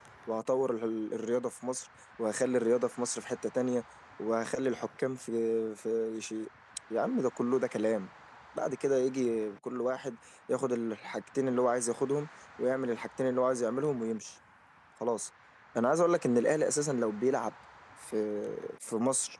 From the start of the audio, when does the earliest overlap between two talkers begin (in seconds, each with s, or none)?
none